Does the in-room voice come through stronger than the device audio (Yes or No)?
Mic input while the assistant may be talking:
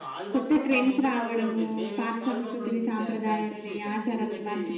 Yes